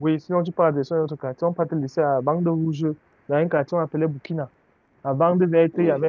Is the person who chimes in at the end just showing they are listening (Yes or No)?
Yes